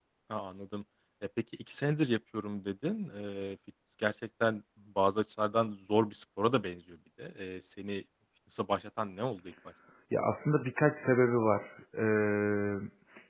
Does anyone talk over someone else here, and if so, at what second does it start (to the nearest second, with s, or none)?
none